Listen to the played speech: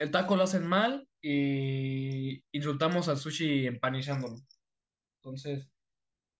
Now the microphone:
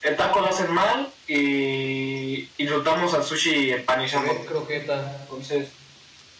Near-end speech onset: 4.0 s

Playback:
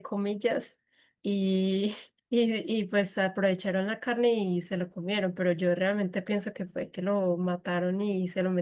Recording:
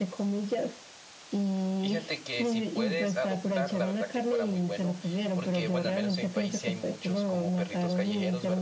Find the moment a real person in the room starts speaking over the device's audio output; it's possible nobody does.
1.8 s

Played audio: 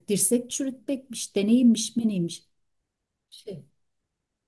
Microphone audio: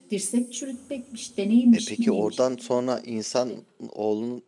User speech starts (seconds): 1.7 s

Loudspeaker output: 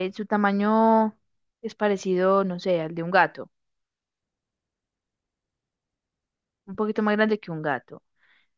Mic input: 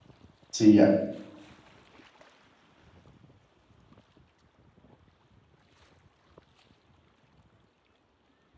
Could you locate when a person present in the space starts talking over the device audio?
0.5 s

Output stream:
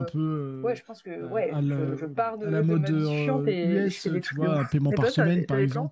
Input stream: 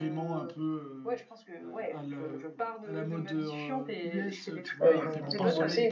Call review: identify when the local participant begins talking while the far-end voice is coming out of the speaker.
4.8 s

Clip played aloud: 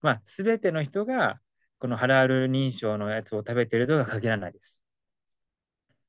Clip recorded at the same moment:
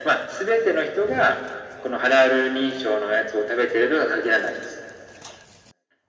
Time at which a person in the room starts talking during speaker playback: none

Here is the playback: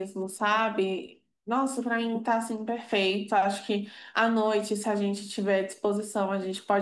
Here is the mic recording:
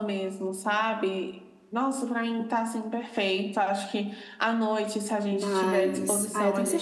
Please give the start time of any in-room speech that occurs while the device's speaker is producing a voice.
5.3 s

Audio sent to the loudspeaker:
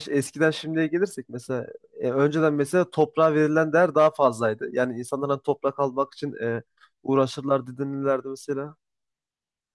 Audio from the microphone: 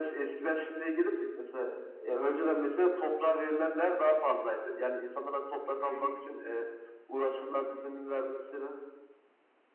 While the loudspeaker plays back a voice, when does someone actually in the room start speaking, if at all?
5.8 s

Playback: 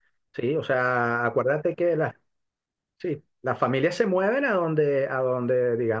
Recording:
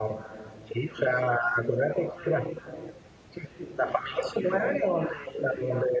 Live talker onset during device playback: none

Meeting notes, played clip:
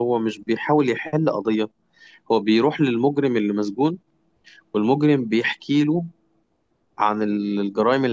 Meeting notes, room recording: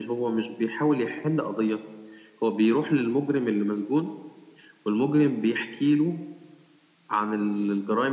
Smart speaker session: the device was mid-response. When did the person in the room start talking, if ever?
none

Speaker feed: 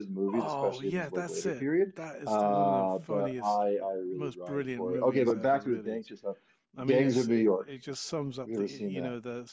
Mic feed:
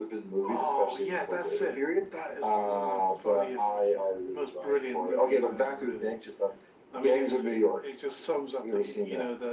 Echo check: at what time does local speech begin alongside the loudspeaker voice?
none

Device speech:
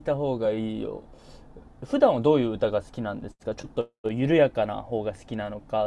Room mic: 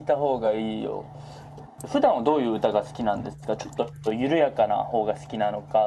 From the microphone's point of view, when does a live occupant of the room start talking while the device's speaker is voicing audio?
none

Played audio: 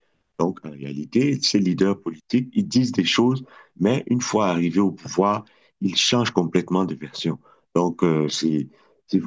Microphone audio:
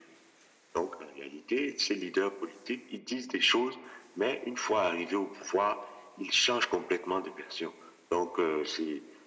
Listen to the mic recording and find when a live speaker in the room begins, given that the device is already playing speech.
none

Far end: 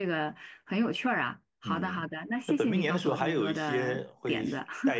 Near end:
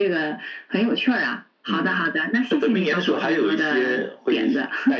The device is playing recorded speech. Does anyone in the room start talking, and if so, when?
none

